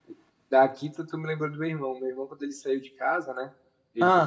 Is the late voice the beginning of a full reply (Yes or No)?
No